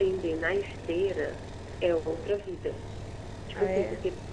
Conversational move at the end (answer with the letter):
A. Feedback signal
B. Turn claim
A